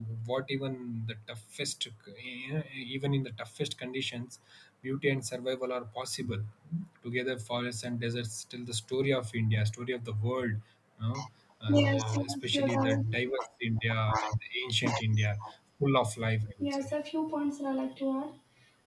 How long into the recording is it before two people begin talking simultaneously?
12 s

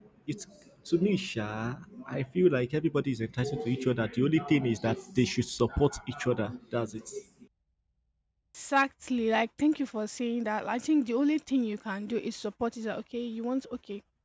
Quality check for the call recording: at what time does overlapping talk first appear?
none

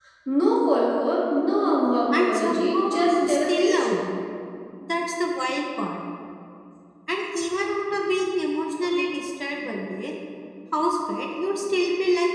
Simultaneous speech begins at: 2 s

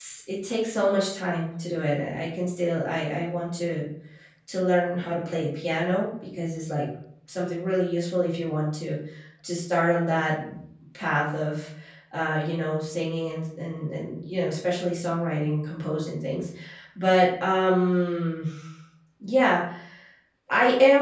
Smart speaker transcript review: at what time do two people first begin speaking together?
none

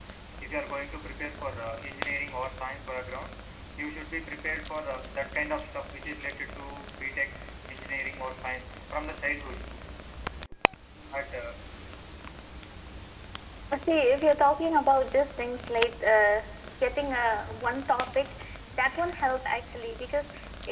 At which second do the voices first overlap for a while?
none

